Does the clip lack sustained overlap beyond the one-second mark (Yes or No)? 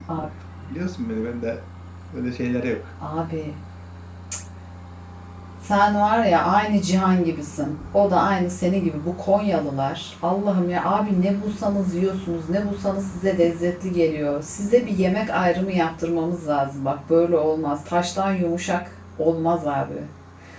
Yes